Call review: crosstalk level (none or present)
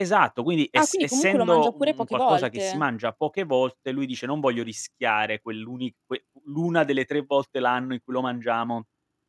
present